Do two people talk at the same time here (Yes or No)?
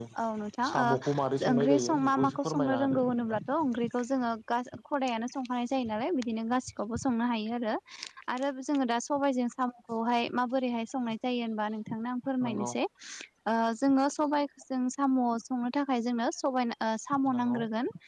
Yes